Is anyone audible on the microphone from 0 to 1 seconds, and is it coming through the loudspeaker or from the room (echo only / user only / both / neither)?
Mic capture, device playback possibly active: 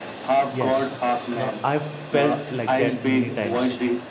both